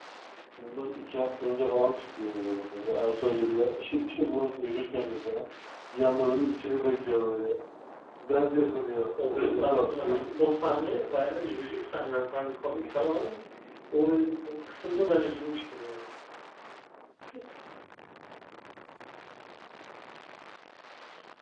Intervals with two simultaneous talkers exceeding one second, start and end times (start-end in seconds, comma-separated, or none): 9.2-10.5